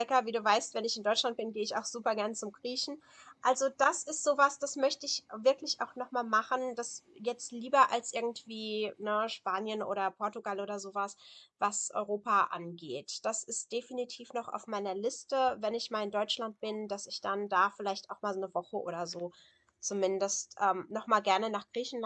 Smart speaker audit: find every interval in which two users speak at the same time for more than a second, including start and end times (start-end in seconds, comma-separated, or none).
none